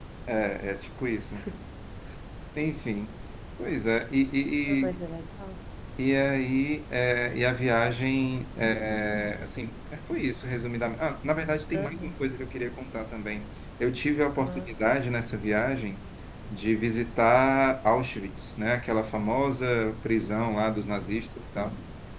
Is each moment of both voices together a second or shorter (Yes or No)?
Yes